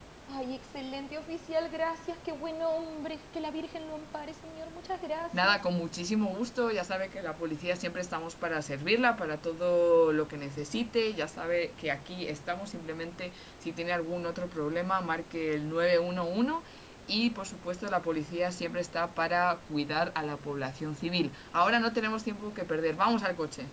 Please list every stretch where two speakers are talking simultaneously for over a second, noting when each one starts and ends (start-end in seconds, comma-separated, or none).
none